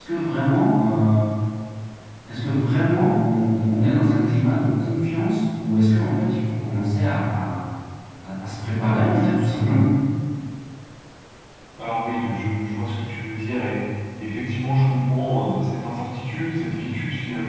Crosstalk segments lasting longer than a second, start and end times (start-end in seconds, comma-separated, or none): none